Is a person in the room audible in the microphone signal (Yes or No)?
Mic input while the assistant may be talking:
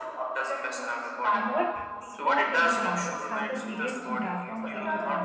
Yes